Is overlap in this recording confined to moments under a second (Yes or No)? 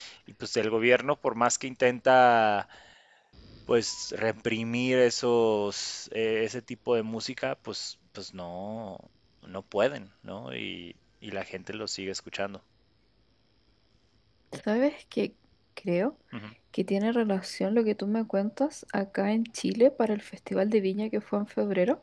Yes